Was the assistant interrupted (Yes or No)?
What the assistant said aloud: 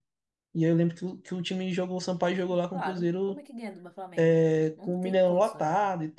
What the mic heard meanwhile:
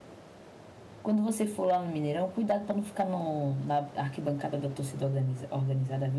Yes